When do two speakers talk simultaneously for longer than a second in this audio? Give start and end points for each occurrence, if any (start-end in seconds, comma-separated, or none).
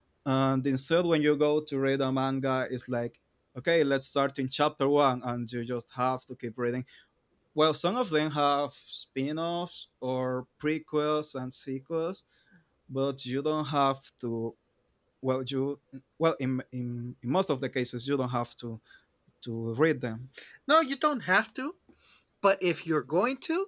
none